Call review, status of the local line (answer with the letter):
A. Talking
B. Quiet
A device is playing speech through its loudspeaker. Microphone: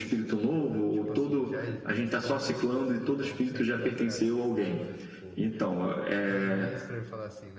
A